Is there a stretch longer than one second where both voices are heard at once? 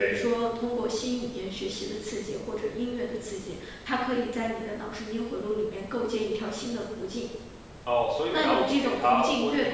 Yes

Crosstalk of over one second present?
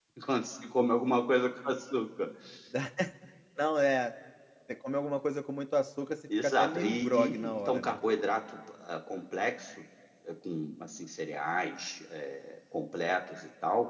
Yes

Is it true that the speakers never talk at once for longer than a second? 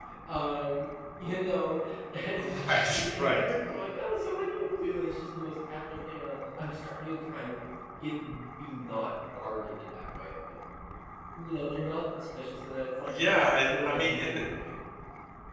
No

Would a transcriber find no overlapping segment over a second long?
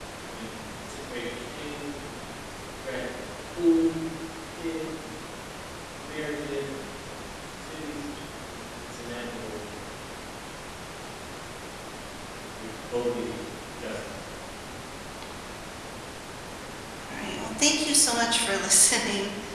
Yes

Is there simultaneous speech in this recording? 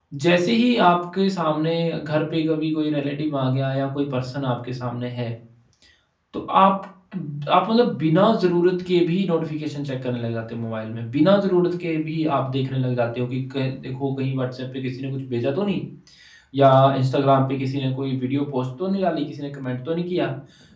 No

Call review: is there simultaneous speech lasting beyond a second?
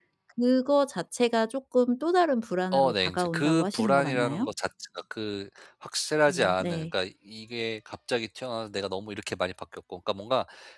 Yes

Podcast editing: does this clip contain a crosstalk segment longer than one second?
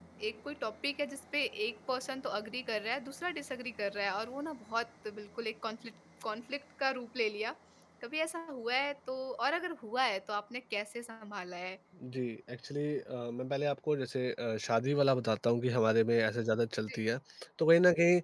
No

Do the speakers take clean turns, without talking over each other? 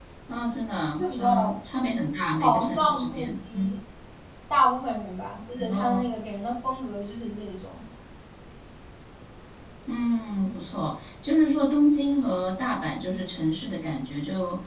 No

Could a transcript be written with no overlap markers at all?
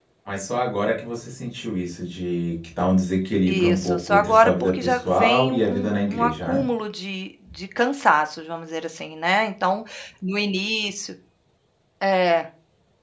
No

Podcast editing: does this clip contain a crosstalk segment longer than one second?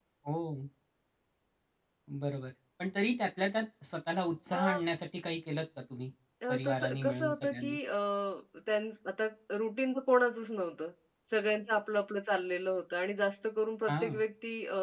Yes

